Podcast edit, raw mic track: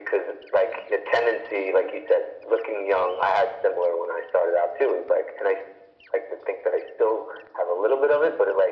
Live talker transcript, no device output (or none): none